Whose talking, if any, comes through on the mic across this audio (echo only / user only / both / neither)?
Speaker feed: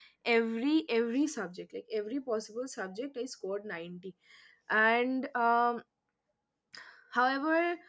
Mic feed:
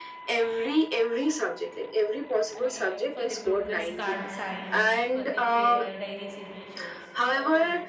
both